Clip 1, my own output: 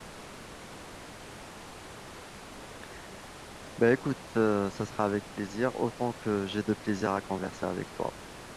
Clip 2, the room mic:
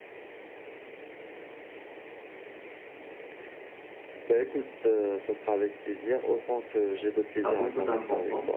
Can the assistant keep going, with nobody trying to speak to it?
No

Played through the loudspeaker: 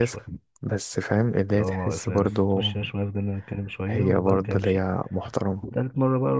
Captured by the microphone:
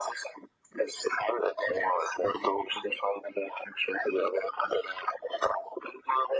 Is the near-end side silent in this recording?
Yes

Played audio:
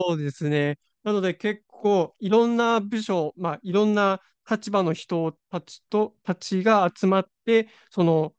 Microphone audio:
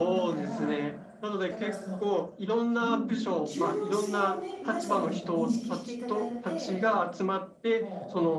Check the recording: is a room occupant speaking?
Yes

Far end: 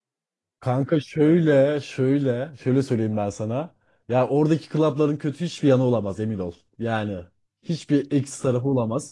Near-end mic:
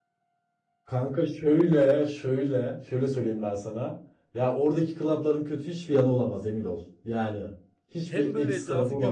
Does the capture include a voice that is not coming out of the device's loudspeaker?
Yes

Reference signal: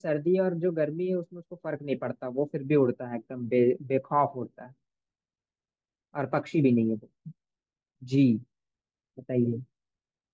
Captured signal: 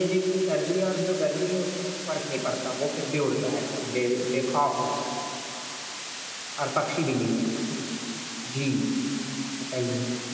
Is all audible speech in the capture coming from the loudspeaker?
Yes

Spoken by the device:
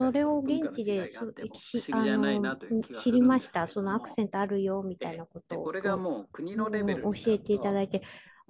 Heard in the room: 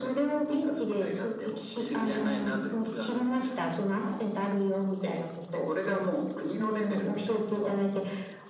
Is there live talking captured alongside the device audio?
No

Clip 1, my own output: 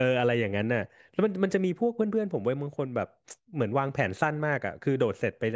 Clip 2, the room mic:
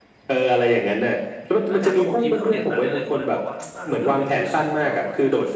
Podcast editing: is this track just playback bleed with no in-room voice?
No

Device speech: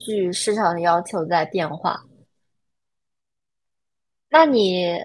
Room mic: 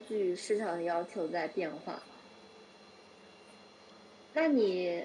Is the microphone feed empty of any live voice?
Yes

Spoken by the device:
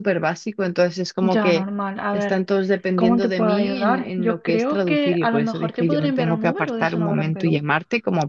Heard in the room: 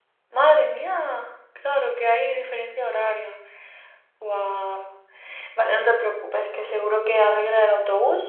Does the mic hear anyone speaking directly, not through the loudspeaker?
Yes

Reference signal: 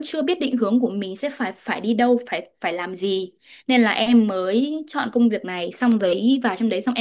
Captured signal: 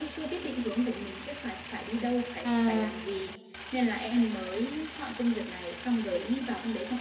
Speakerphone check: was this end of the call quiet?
No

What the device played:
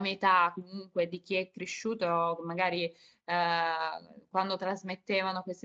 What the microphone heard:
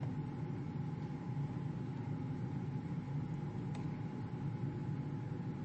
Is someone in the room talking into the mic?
No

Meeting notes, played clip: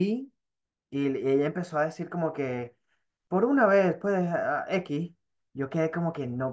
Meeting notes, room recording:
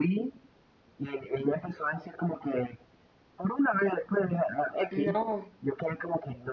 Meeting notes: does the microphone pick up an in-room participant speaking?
Yes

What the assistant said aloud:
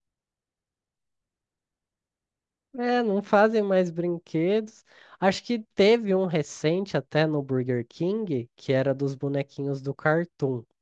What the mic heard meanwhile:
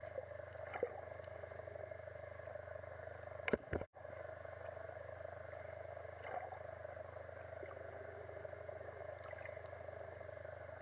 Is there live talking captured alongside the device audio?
No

